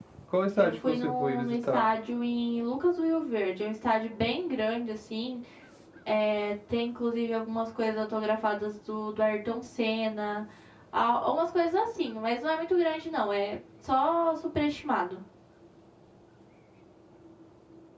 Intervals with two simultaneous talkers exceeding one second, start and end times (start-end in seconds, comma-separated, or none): 0.6-1.9